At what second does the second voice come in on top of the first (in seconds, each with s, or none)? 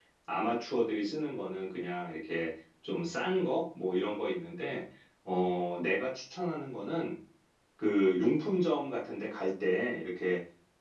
none